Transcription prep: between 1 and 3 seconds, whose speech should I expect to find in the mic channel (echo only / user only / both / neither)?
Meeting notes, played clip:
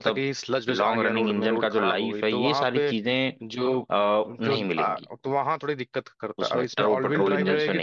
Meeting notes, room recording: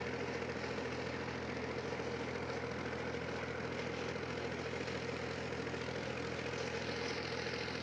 neither